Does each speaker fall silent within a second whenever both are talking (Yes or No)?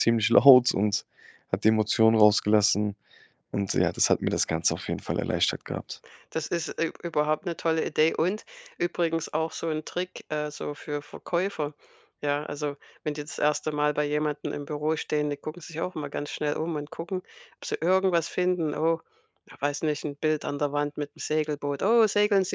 Yes